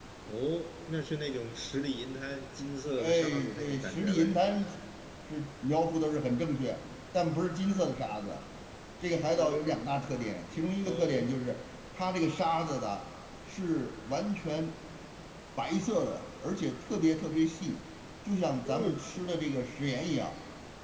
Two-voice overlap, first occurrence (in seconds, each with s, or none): 3.0 s